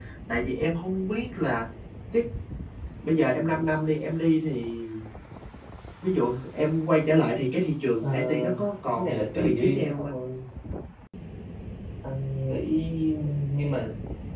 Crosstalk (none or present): present